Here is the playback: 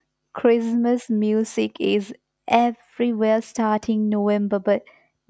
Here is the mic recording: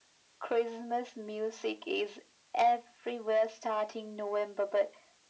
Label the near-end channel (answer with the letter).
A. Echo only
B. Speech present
A